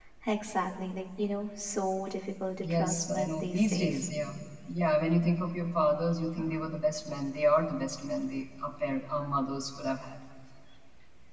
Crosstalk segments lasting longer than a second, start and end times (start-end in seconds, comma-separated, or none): 2.6-4.0